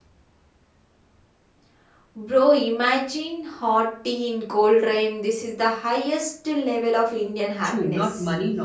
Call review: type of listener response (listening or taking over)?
taking over